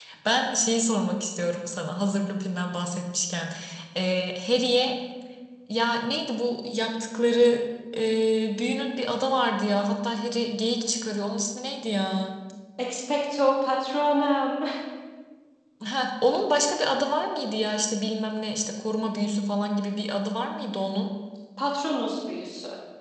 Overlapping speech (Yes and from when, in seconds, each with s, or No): No